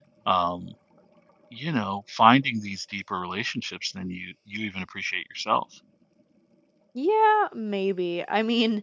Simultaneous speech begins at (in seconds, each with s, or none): none